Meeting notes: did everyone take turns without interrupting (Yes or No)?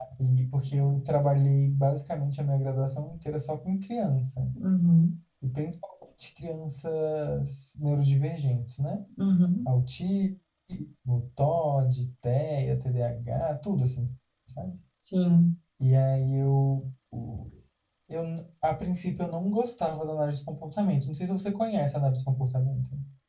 Yes